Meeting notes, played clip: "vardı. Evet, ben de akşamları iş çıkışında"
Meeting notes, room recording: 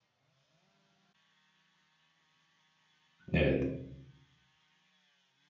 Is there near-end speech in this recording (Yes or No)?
Yes